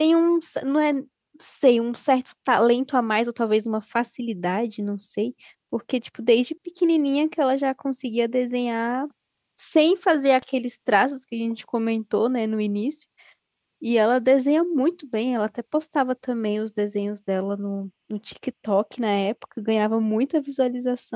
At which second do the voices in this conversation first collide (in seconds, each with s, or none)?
none